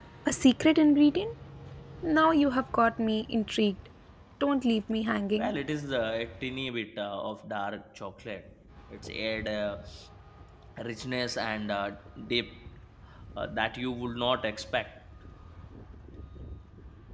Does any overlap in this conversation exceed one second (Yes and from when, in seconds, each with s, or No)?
No